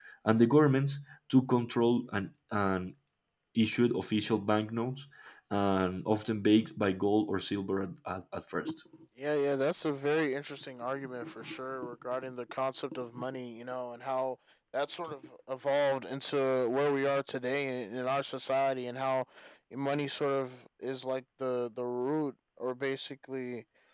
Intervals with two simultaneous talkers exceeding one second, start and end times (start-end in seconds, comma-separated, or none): none